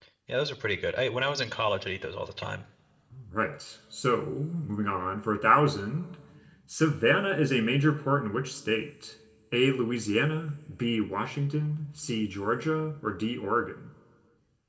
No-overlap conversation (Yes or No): Yes